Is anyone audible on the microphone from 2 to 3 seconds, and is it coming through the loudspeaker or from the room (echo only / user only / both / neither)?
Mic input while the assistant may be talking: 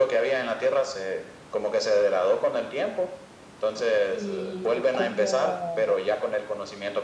echo only